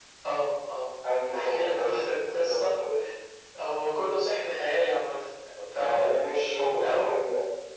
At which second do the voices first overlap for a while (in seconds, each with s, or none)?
1.3 s